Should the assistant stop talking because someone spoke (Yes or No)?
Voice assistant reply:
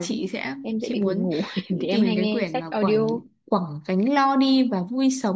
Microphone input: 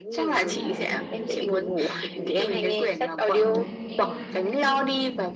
Yes